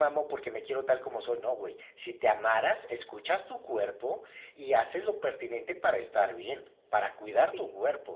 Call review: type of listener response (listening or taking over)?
listening